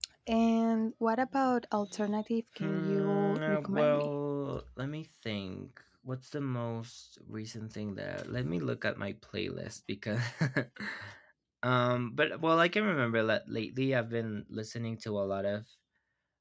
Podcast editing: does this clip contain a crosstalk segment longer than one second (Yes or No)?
Yes